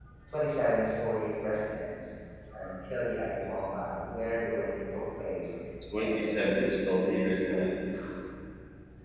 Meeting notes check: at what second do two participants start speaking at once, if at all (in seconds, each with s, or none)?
6.0 s